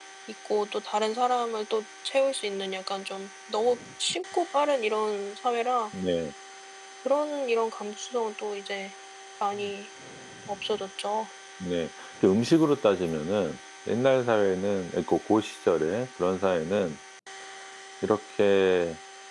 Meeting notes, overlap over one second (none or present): none